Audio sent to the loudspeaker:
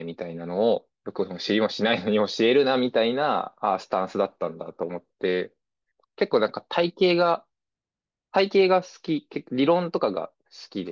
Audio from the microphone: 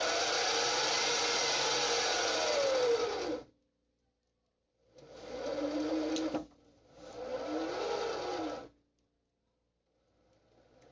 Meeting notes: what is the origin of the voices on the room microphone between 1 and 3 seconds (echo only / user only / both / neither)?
neither